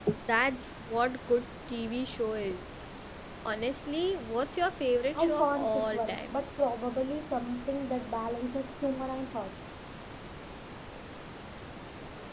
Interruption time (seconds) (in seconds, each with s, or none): 5.2 s